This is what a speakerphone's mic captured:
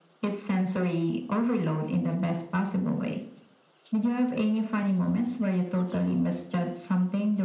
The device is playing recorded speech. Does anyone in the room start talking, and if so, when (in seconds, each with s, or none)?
none